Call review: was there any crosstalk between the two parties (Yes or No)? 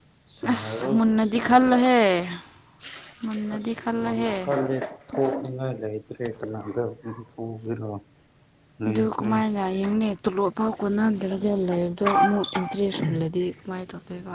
Yes